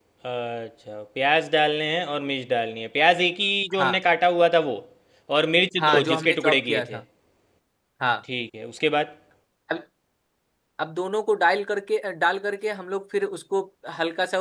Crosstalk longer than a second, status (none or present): present